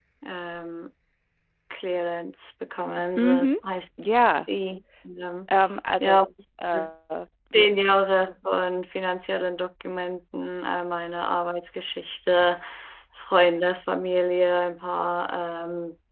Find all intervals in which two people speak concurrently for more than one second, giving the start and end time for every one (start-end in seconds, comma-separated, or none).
none